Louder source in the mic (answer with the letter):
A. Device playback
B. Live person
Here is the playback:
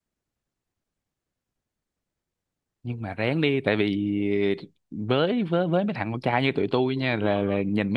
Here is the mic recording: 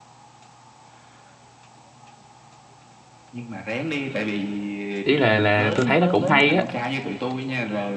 B